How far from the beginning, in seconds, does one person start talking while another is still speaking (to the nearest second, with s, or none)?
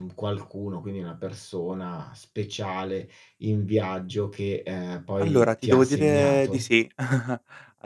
5 s